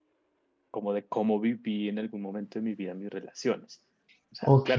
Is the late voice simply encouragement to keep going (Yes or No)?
Yes